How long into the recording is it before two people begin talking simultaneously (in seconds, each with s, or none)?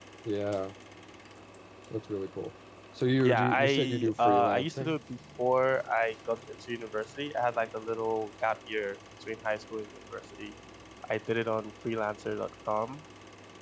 3.2 s